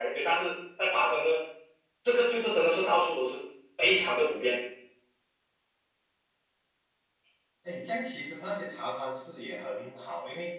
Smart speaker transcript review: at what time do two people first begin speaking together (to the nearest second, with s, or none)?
none